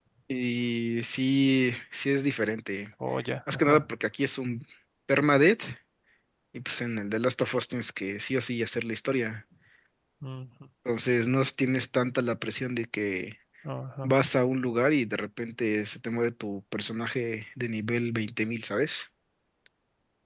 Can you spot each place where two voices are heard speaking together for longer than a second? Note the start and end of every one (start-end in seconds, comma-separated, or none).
none